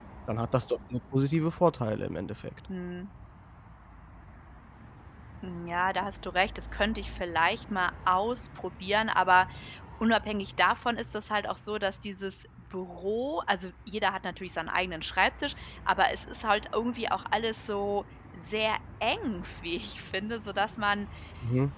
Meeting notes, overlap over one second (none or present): none